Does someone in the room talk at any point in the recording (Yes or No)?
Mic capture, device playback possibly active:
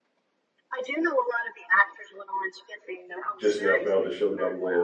Yes